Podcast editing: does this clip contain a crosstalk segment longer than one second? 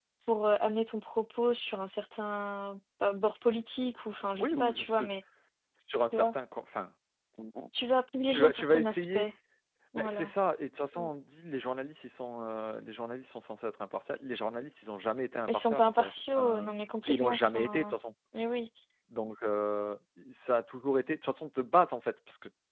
Yes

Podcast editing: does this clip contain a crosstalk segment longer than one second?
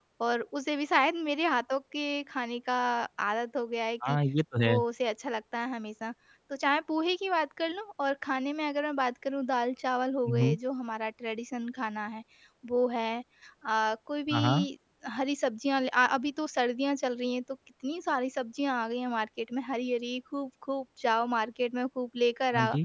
No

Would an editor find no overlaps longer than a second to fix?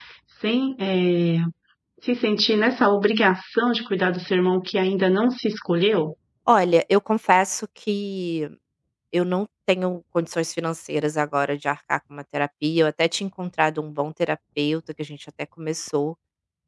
Yes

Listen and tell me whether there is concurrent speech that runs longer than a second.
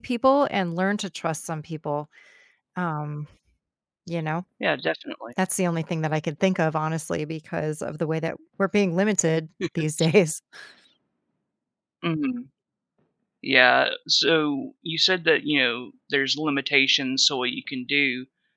No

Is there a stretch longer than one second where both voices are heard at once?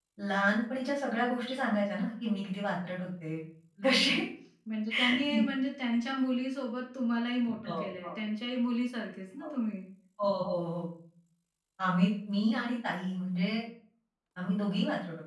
No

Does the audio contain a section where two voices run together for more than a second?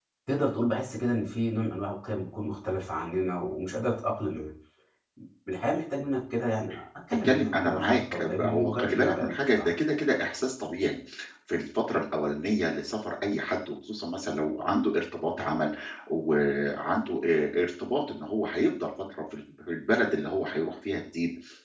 Yes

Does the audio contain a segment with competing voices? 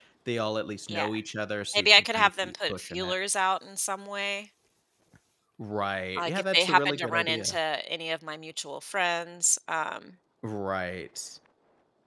Yes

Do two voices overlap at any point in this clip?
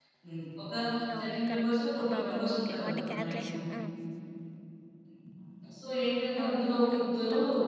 Yes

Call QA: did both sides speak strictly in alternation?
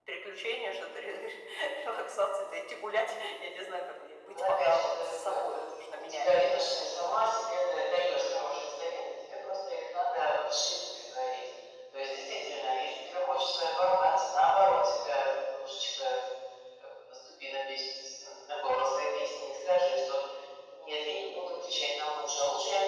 No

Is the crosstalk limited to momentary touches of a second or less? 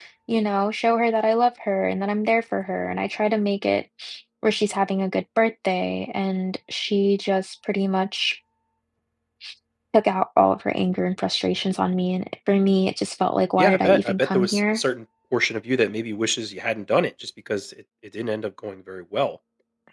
No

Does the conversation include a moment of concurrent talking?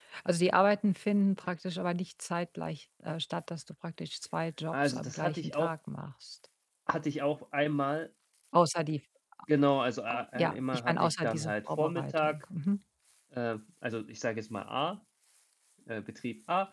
Yes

